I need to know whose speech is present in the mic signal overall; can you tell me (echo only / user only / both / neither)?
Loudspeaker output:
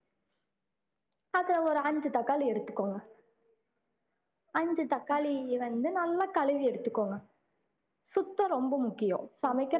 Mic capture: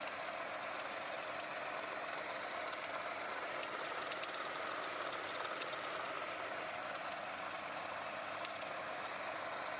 neither